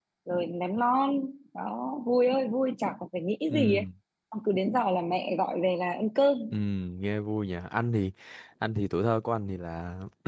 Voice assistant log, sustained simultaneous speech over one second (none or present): none